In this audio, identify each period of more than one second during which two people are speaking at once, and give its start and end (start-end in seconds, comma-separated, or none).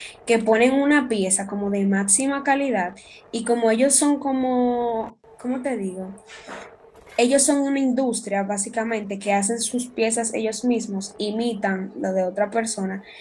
none